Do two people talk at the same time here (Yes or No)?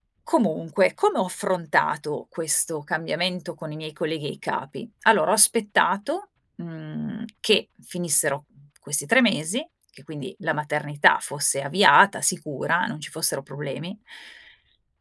No